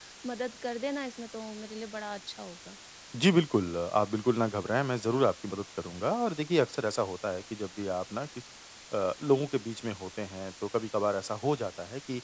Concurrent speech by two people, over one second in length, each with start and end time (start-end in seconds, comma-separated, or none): none